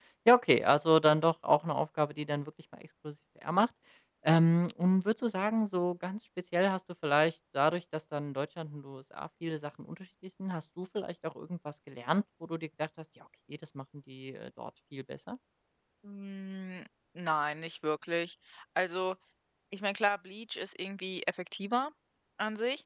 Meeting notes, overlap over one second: none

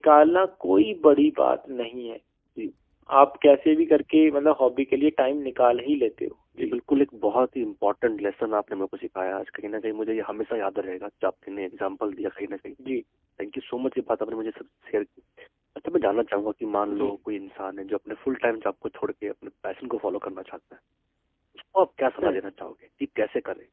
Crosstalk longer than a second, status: none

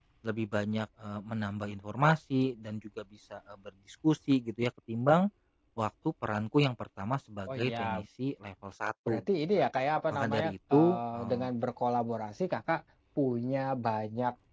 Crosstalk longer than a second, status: present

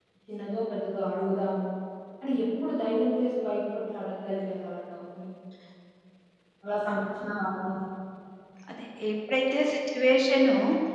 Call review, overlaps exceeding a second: none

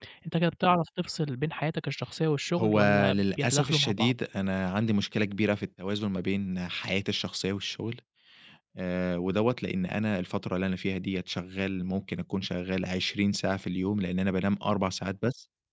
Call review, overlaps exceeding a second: present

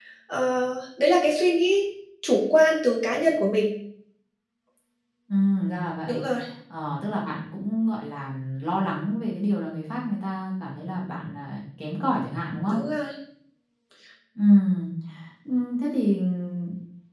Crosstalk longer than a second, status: none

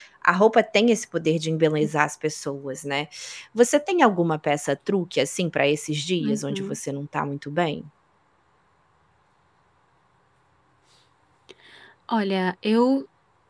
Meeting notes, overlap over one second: none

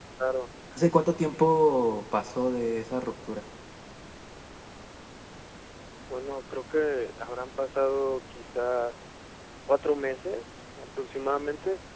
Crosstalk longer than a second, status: none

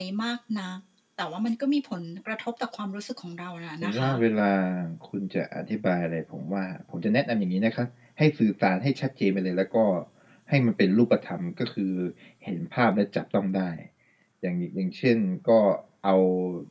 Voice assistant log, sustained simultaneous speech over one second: none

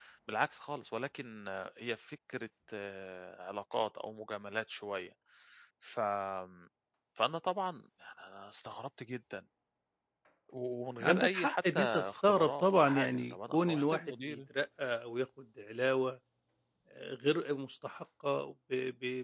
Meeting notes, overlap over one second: present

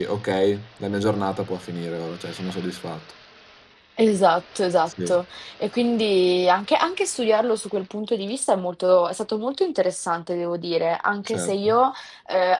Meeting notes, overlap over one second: none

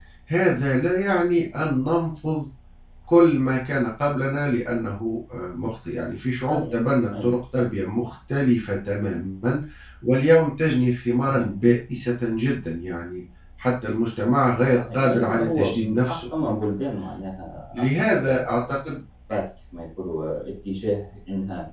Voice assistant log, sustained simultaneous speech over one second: present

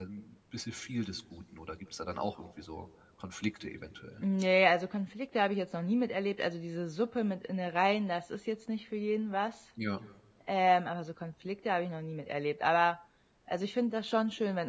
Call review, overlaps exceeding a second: none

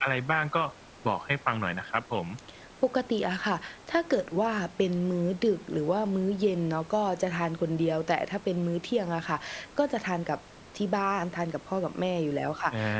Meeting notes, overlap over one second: none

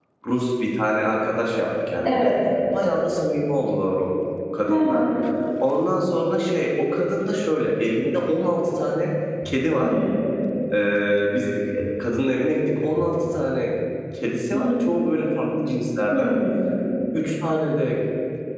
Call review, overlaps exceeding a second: none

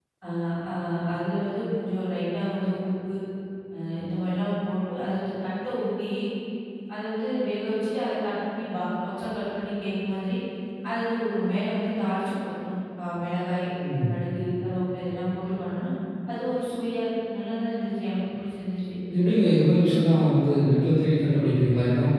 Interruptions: none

